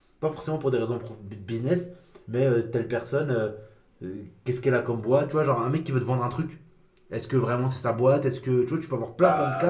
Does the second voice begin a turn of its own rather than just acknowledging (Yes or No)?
Yes